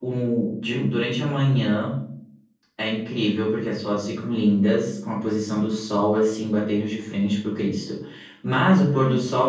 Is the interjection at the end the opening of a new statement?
No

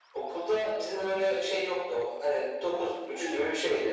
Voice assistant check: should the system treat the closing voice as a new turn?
No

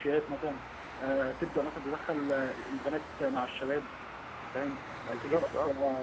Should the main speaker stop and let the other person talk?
No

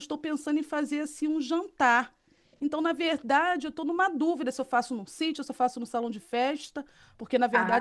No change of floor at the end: Yes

